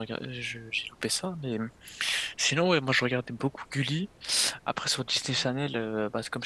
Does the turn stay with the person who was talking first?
Yes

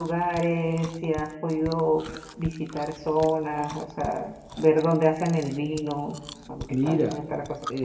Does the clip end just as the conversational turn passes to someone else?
Yes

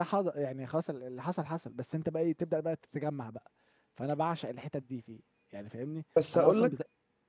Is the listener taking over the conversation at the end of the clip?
Yes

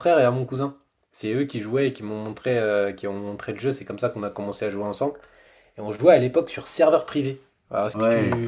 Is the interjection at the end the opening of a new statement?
Yes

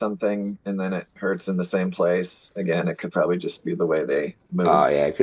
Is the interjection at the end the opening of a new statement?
Yes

